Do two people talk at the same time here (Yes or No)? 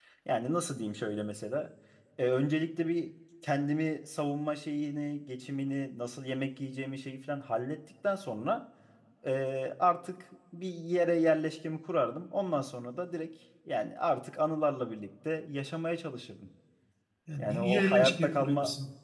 Yes